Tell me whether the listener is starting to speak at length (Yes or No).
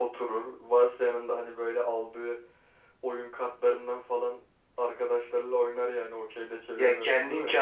Yes